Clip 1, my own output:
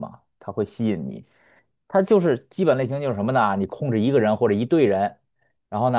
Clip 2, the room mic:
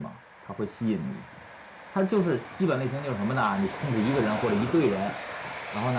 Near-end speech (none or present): none